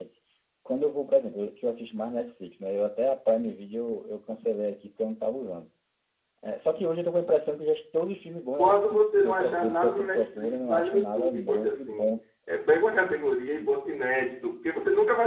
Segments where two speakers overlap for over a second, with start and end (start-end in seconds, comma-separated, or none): 8.6-12.1